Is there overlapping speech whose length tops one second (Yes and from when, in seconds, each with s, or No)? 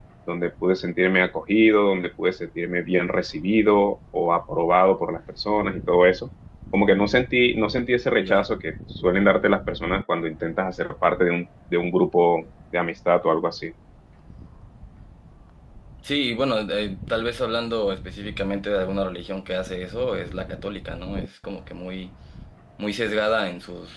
No